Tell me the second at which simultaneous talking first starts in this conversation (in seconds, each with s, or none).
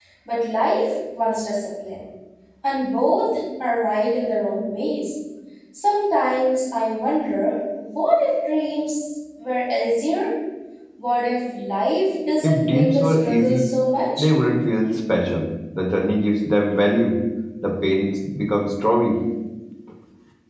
12.4 s